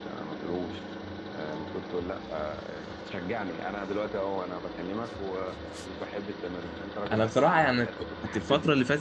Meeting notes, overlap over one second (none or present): present